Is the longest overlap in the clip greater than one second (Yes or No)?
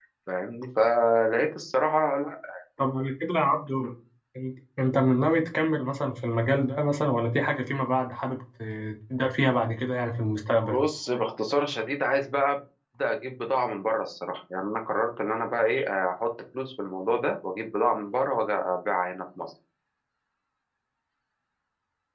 No